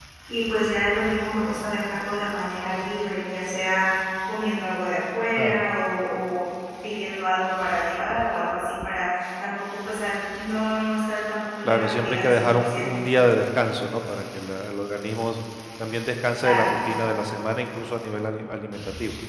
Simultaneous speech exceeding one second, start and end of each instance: 11.6-12.9

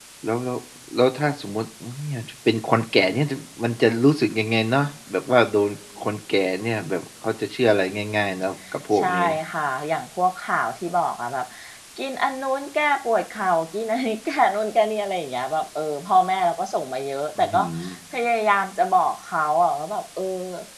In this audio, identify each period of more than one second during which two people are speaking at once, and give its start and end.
none

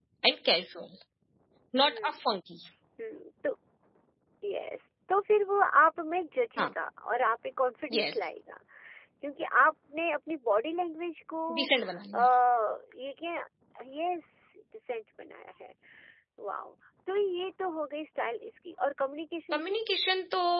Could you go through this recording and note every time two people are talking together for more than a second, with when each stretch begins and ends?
none

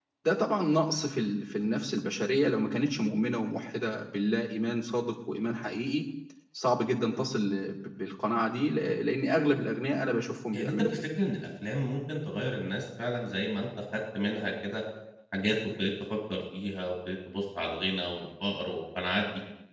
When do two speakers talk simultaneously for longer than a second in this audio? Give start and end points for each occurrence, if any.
none

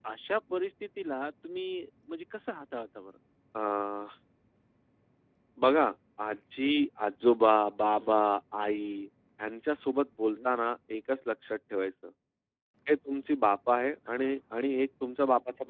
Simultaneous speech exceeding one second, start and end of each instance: none

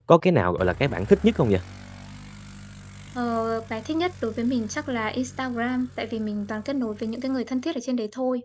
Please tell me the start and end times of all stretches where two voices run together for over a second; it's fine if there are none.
none

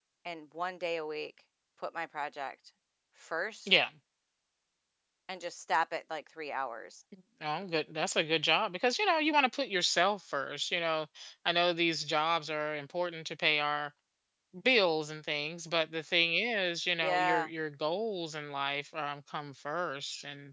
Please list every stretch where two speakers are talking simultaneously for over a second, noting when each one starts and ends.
none

